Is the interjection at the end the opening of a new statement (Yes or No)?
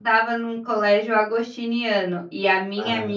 No